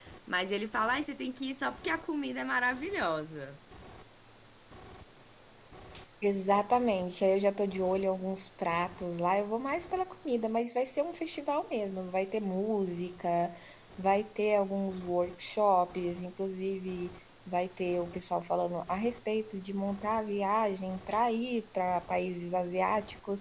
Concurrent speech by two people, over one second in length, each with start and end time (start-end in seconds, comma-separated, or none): none